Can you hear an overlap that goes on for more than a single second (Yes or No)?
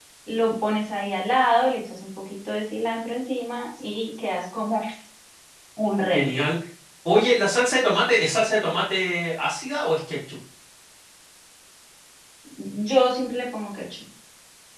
No